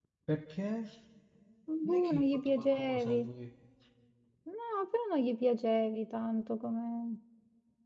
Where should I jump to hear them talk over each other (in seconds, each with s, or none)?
1.8 s